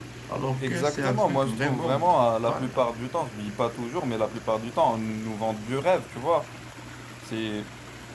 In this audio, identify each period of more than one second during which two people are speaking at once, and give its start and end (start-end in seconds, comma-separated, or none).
0.6-2.0